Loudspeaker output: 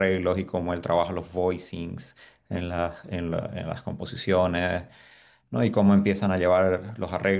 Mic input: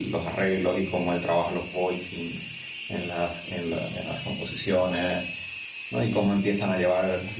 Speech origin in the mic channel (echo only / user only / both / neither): echo only